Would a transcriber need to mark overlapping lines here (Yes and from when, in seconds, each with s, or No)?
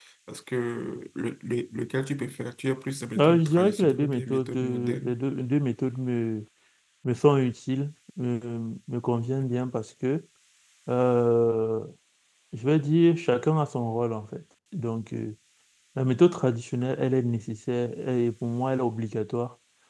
Yes, from 3.1 s